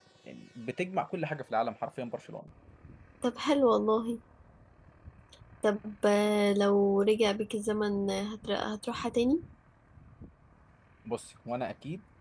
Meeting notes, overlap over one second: none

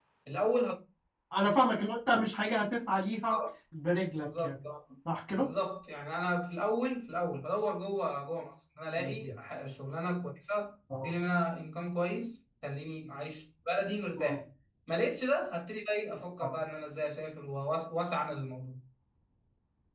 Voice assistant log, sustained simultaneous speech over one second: none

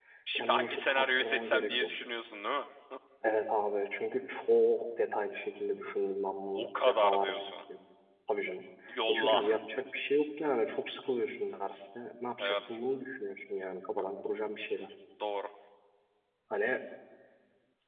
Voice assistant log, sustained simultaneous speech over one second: present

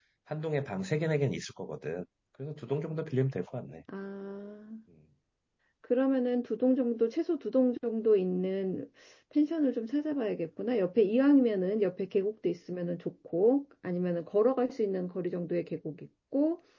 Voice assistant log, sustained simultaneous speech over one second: none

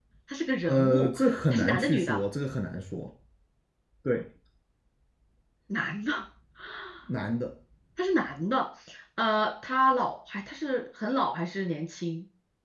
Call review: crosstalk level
present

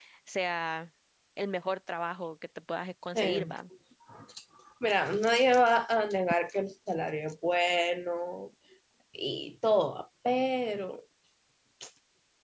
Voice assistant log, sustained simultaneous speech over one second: none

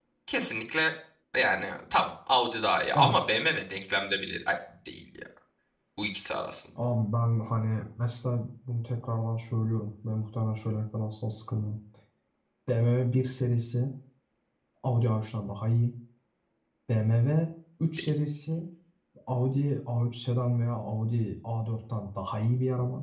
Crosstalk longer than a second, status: none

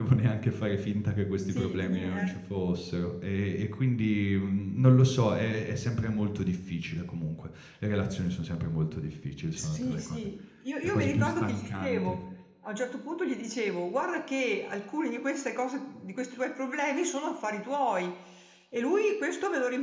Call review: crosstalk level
present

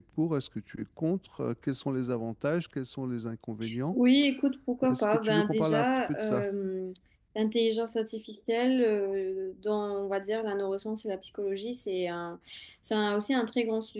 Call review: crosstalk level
present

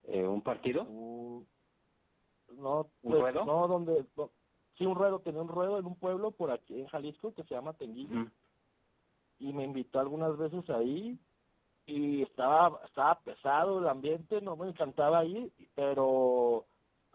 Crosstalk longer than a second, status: none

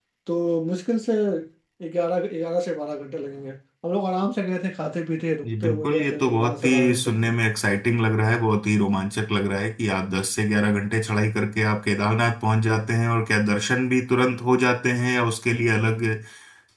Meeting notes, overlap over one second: present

